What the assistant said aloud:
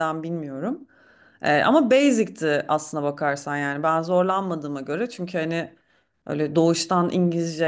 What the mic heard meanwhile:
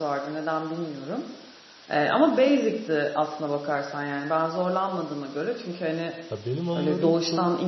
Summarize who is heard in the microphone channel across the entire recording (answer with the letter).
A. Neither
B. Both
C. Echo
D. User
B